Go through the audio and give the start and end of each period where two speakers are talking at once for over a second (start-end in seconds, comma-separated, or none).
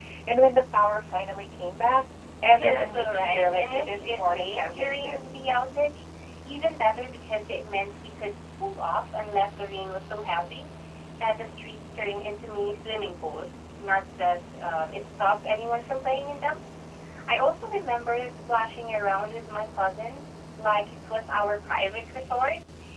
2.5-5.2